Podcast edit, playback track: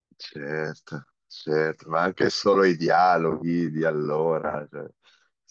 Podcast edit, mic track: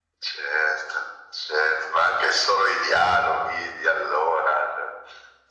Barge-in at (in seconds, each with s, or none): none